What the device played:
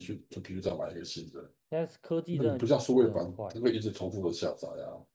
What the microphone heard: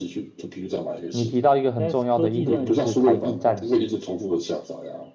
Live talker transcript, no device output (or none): 你提到一个很重要的一点，就是台币战士。